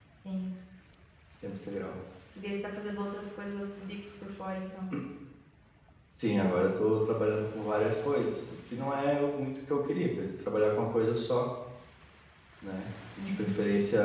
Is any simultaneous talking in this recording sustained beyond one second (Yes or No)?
No